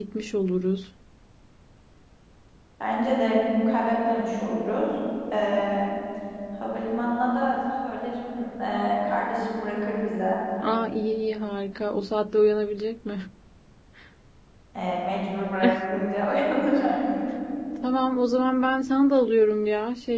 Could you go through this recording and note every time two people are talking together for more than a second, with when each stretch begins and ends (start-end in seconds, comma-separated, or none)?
none